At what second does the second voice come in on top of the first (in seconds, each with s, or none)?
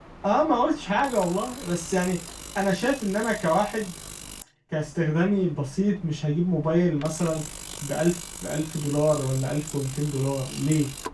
none